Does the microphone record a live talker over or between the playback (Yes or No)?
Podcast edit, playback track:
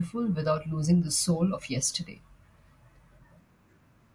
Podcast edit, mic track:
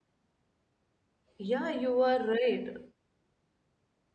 Yes